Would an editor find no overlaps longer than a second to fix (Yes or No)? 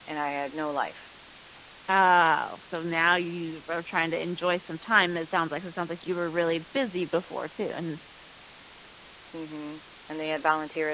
Yes